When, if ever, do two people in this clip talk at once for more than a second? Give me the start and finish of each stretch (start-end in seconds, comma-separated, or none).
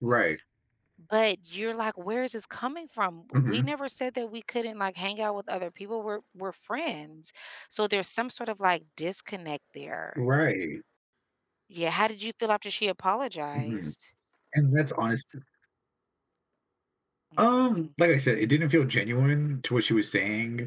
none